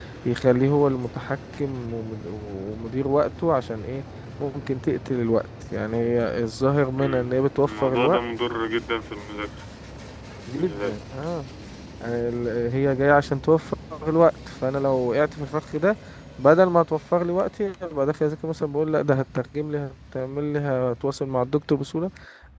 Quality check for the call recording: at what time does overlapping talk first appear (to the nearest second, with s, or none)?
7 s